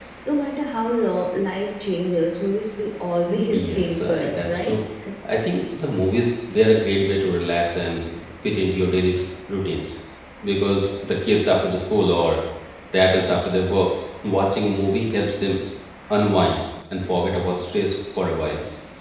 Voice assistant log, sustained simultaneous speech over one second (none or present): present